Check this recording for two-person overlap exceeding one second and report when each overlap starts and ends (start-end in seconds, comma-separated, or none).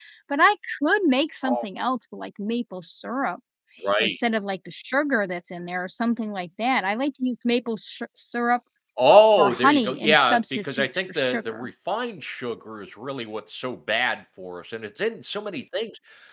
9.4-11.7